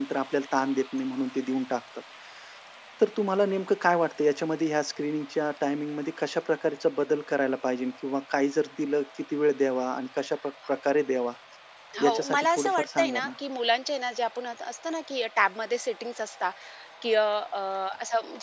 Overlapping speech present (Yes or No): Yes